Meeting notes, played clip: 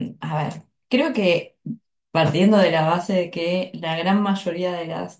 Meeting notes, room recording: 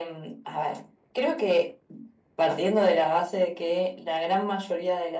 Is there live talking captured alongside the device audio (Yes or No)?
No